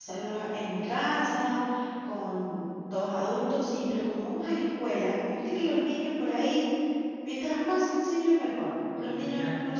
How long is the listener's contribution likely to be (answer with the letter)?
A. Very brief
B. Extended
A